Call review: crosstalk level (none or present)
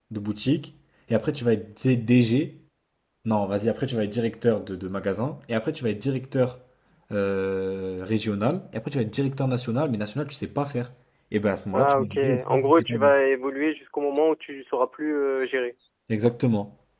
present